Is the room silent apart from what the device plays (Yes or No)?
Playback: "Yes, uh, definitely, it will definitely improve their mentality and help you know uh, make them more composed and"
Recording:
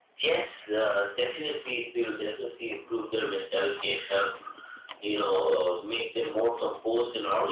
Yes